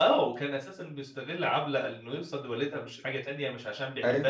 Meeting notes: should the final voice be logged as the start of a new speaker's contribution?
No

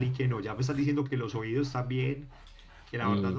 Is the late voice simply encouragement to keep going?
Yes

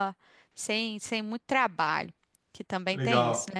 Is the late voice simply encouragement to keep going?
No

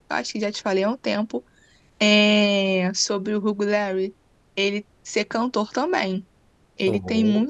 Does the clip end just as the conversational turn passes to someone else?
No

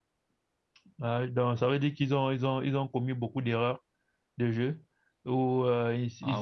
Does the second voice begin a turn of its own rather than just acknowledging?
No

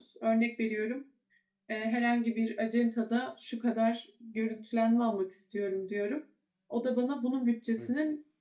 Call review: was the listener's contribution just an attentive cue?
Yes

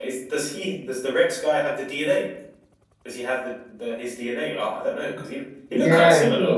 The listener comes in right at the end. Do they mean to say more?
Yes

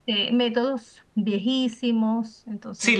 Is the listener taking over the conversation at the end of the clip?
Yes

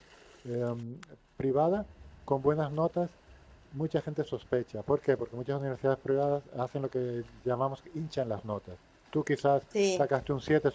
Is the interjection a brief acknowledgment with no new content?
Yes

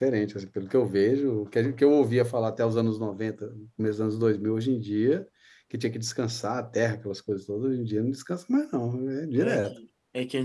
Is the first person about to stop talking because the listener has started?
Yes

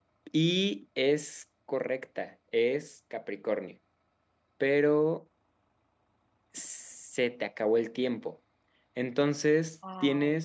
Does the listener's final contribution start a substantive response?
No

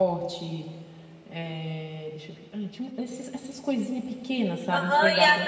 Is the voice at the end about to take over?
Yes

